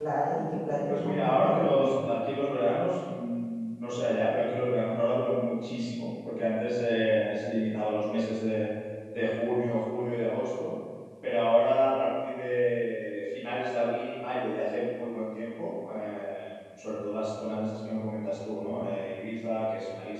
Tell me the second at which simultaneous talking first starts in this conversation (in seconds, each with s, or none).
0.9 s